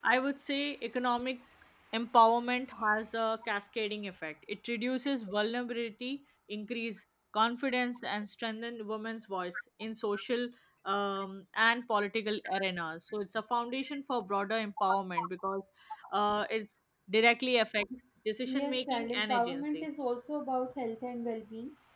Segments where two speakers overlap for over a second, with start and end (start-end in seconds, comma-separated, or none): 18.5-19.9